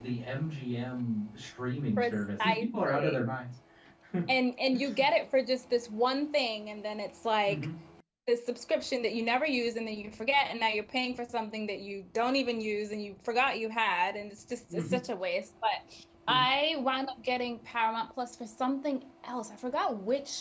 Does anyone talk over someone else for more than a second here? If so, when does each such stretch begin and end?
2.0-3.2

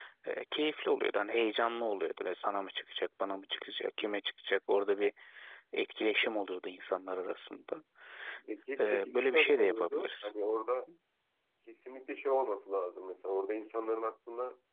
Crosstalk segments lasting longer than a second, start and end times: 8.8-10.3

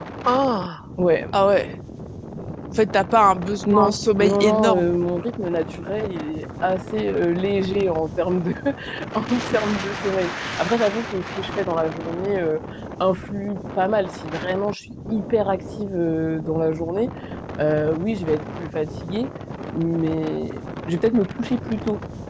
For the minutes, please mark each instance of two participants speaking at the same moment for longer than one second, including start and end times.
3.7-4.9

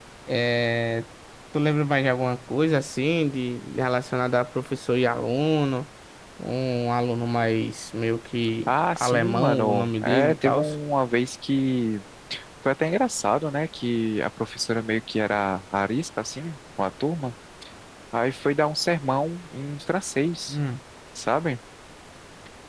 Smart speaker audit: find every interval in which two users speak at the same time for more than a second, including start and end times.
8.7-10.6

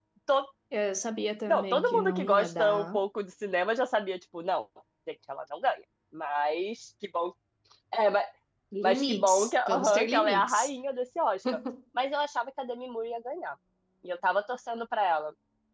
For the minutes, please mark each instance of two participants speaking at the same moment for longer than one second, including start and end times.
1.5-3.0, 8.8-10.7

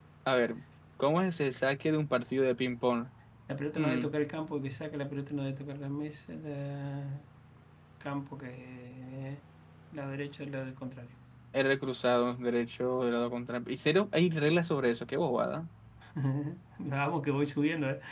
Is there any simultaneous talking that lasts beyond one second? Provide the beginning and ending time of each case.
none

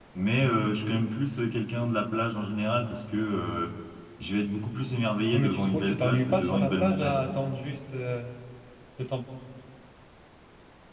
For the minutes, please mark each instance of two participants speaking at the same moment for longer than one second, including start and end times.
5.3-7.3

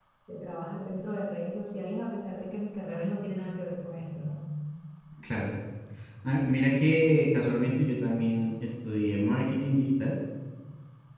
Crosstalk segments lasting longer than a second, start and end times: none

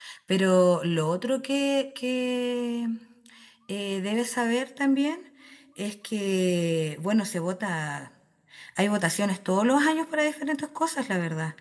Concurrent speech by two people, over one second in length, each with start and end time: none

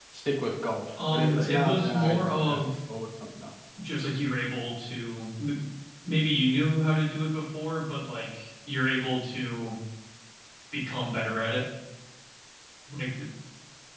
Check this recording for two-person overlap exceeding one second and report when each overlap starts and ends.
1.1-2.6

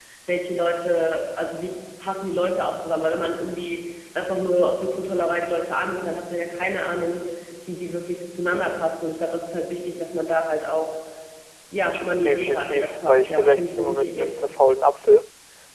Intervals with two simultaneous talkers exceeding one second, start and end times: 12.2-14.3

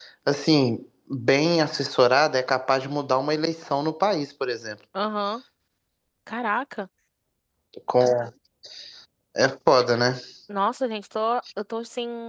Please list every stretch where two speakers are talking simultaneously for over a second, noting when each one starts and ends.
none

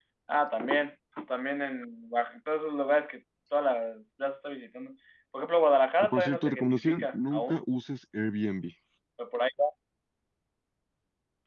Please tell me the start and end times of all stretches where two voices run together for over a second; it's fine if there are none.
6.0-7.6

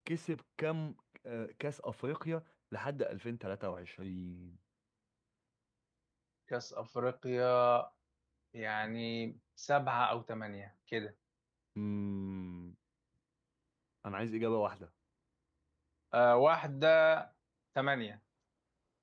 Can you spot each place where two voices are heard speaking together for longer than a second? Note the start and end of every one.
none

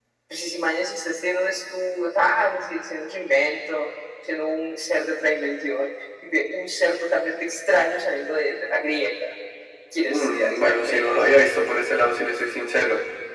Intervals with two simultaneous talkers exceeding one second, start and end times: 10.0-11.3

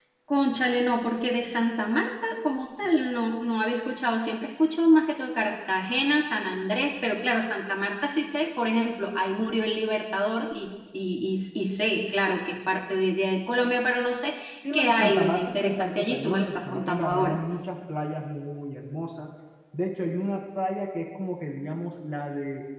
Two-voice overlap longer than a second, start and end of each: 14.7-17.4

